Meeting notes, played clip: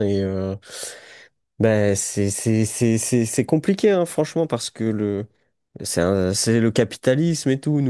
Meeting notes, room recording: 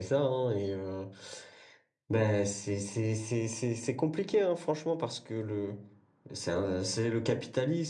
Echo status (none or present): present